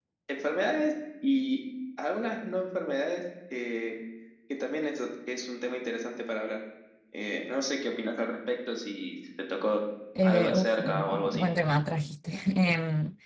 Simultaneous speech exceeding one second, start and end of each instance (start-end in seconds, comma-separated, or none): 10.2-11.5